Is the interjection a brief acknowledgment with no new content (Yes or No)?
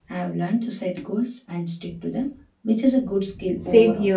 No